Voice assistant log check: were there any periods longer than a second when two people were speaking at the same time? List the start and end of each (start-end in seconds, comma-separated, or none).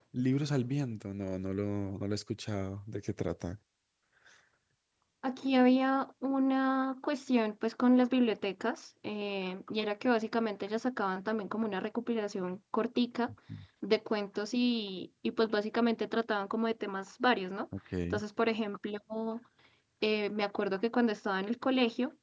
none